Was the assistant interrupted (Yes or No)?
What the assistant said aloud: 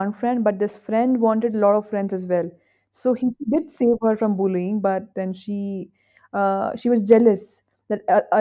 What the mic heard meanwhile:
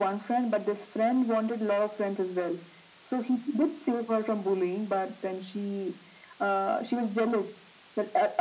No